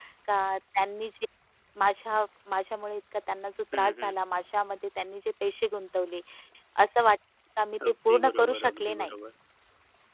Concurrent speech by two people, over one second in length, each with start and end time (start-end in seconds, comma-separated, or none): 7.9-9.2